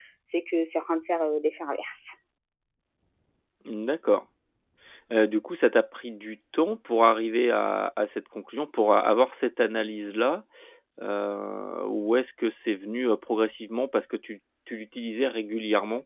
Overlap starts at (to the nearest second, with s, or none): none